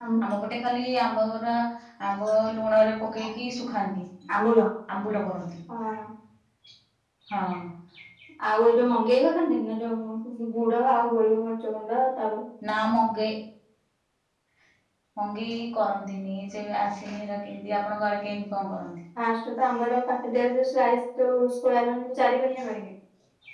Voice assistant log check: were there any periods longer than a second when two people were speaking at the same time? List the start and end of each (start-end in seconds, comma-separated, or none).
none